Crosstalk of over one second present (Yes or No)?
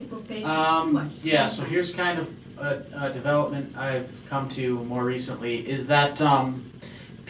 Yes